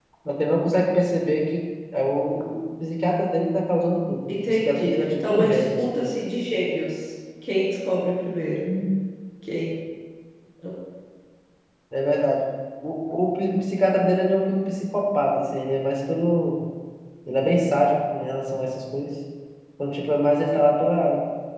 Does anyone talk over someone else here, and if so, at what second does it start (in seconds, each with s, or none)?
4.3 s